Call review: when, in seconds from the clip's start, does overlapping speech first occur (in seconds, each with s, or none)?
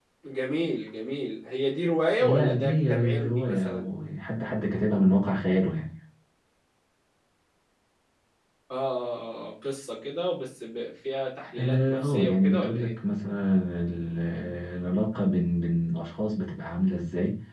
2.2 s